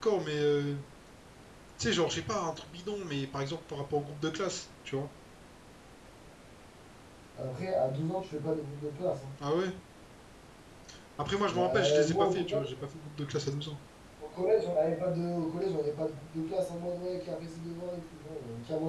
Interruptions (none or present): present